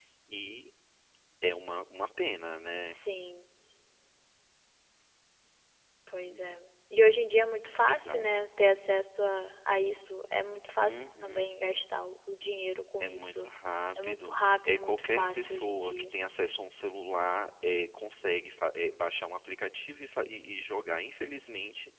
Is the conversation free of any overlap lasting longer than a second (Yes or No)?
No